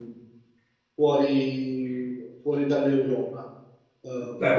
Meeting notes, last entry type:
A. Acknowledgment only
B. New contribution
A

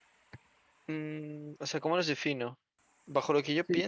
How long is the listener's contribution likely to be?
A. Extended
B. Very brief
A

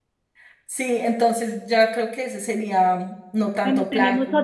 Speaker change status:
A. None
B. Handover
B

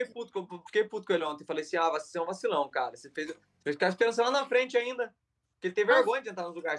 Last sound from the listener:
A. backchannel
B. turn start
A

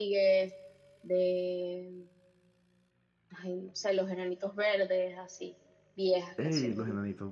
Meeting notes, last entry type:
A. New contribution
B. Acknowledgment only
A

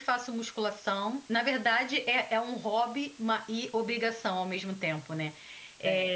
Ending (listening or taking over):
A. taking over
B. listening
B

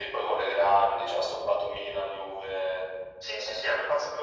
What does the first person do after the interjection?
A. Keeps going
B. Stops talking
B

